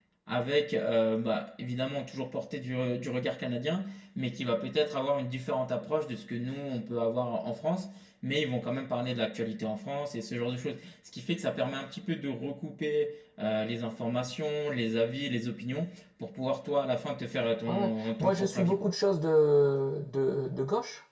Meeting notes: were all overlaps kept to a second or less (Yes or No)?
No